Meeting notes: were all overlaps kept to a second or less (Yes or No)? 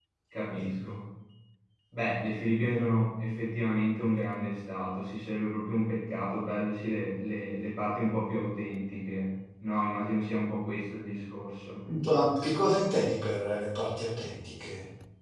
Yes